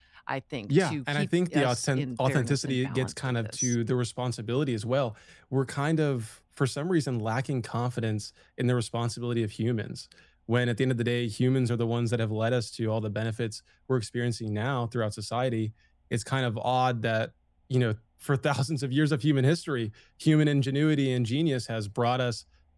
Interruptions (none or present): present